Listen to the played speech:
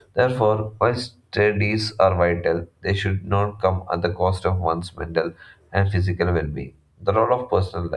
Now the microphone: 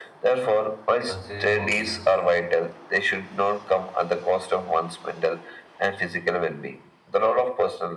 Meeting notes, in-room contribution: present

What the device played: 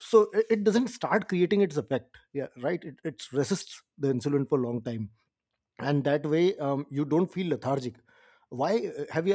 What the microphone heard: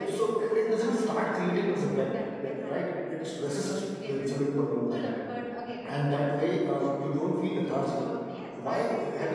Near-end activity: present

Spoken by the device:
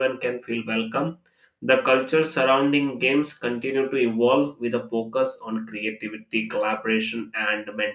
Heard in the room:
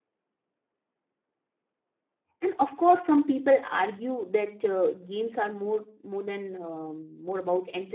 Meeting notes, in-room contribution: present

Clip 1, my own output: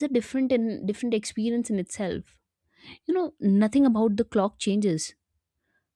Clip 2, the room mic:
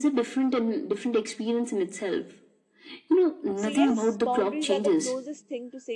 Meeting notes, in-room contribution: present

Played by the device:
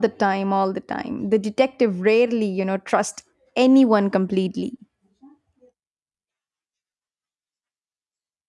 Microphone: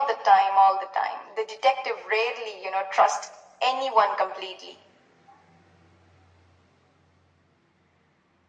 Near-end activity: none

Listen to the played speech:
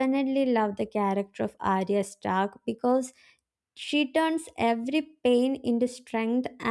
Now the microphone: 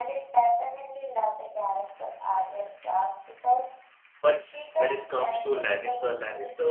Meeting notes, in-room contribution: present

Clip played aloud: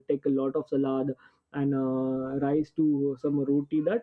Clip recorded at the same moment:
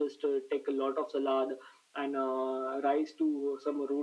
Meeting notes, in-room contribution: none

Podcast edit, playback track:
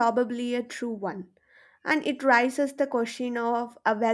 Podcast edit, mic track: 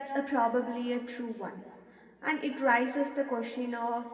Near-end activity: none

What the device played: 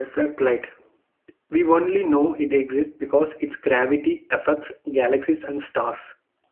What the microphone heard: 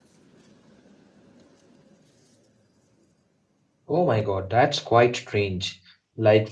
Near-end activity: present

